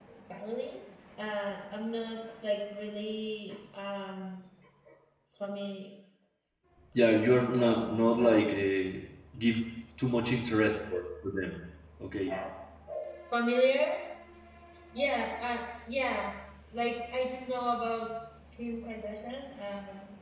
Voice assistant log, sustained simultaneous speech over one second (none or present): present